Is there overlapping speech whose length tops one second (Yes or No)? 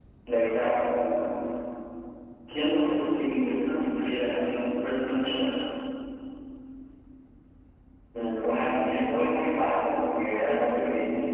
No